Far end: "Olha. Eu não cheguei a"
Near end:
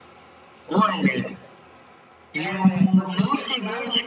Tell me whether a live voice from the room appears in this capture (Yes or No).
Yes